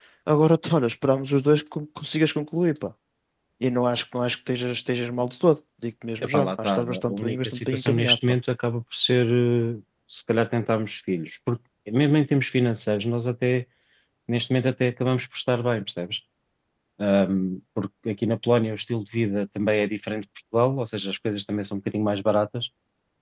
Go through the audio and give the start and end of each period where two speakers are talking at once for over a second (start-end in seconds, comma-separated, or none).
6.2-8.4